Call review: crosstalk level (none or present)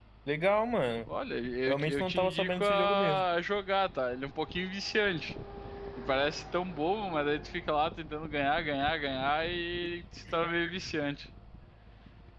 present